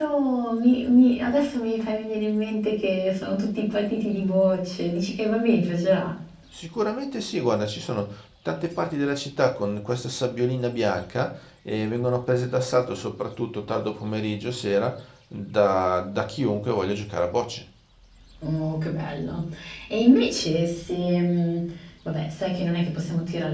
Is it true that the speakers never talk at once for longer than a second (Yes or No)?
Yes